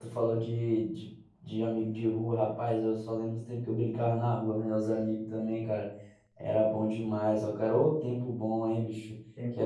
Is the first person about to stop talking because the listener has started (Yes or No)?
No